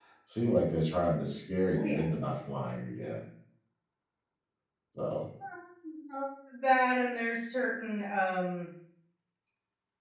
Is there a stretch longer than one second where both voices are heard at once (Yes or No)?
No